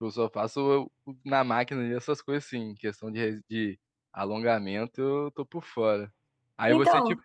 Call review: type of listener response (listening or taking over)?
listening